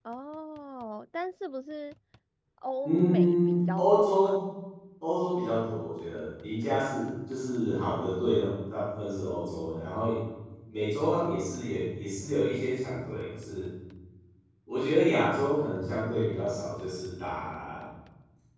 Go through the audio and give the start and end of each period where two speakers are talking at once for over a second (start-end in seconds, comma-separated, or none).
2.8-4.4